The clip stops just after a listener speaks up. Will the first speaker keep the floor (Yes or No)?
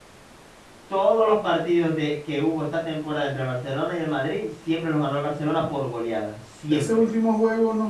No